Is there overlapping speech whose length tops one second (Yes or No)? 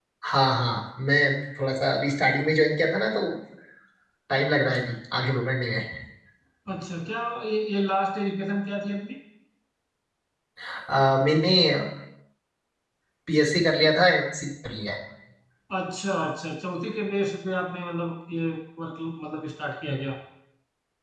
No